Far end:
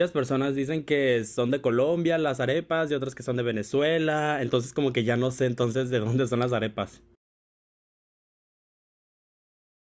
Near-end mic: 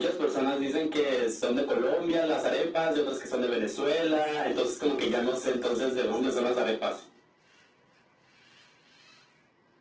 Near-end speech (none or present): none